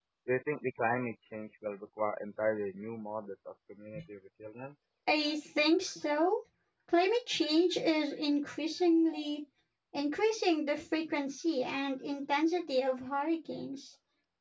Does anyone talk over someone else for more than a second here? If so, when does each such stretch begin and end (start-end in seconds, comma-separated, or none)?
none